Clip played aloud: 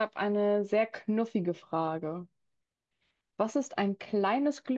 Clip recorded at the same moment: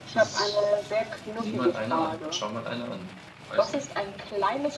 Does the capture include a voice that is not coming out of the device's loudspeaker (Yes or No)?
Yes